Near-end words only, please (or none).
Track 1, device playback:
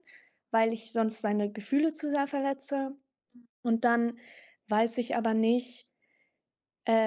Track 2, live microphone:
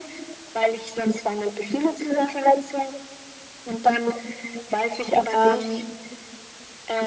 Ähm,